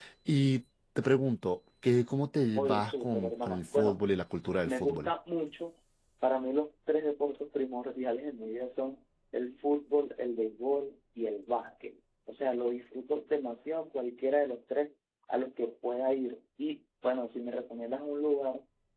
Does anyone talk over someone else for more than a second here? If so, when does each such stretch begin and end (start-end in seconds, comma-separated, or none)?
2.6-4.0